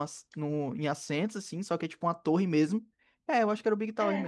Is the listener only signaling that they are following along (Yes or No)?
No